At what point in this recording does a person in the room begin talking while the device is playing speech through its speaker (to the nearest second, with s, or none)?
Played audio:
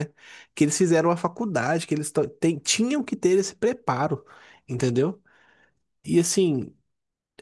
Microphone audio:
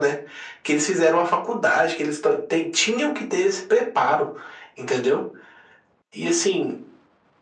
none